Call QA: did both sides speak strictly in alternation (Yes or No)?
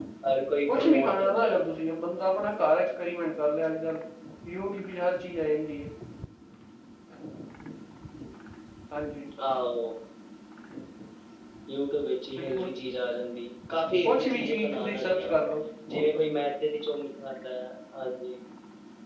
No